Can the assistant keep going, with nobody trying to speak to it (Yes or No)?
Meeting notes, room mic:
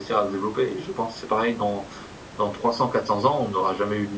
Yes